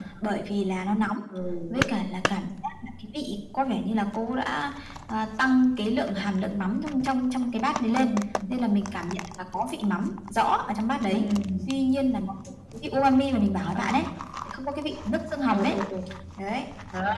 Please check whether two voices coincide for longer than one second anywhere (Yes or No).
No